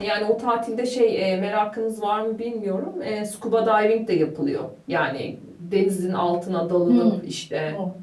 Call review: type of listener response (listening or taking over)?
taking over